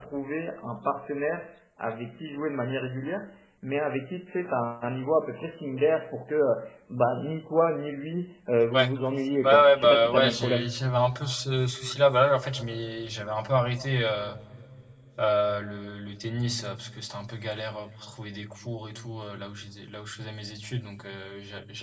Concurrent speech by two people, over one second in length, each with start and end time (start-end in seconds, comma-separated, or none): 9.4-10.8